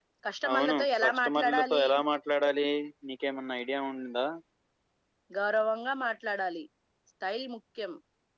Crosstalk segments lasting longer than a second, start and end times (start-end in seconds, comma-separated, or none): 0.5-1.8